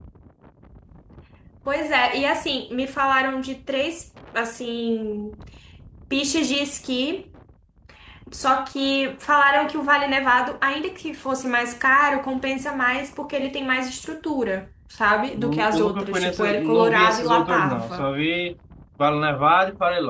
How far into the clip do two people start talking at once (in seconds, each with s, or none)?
15.4 s